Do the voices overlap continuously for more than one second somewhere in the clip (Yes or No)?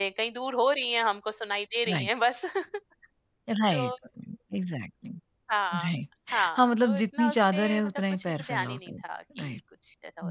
Yes